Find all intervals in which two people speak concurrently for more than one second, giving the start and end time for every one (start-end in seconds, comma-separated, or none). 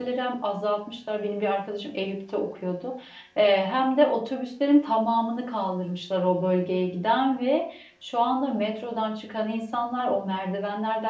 none